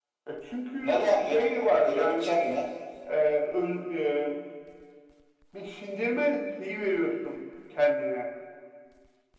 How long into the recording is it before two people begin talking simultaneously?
1 s

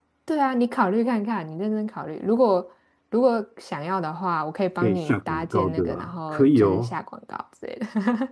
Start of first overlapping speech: 5 s

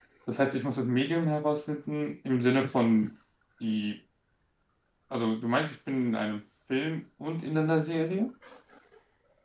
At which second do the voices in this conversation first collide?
none

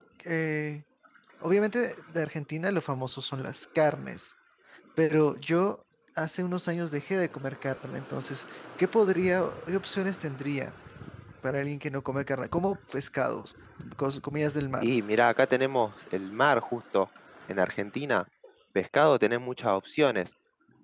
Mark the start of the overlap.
none

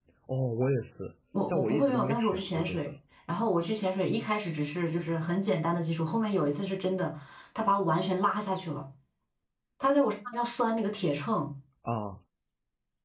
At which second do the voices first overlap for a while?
1 s

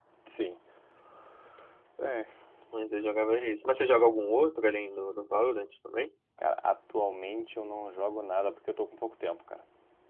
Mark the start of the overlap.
none

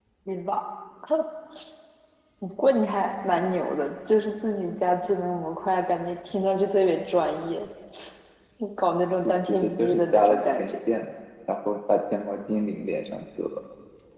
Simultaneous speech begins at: 9 s

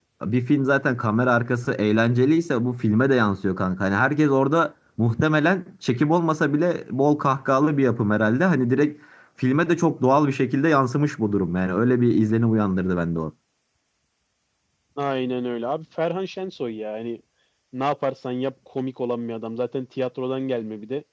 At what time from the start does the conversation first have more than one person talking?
none

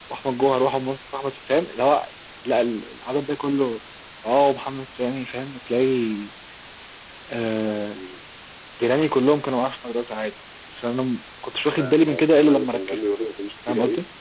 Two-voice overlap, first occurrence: 12 s

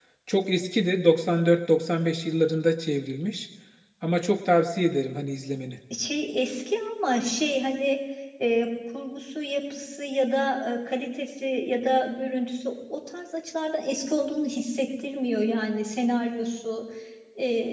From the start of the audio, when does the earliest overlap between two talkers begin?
none

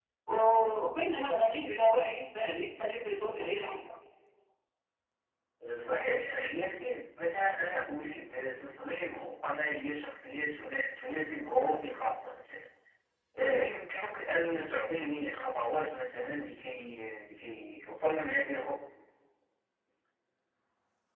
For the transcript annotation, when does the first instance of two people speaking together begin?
none

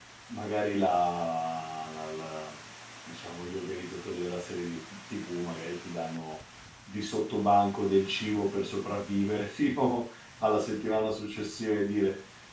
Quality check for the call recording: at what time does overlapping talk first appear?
none

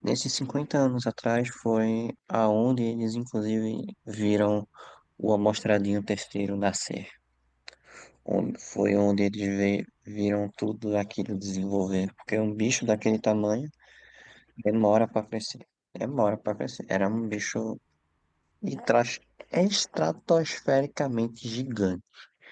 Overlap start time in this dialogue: none

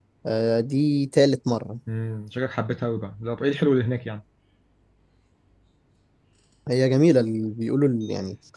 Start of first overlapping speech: none

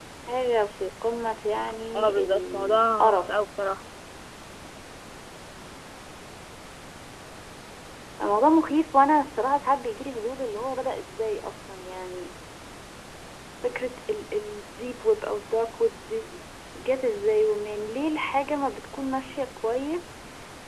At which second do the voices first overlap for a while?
2 s

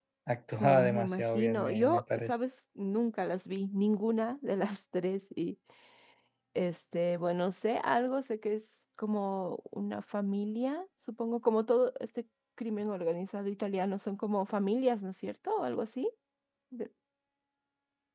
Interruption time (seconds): 1 s

